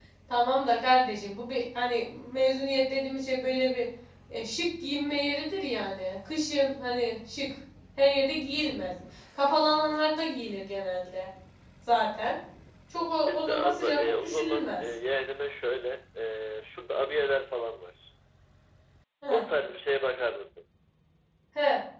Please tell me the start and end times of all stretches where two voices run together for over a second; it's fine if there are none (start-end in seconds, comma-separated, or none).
13.1-14.8